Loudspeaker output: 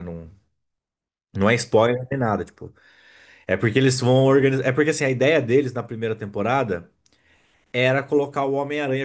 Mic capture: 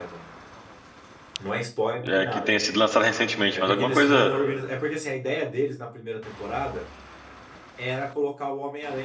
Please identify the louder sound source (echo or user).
user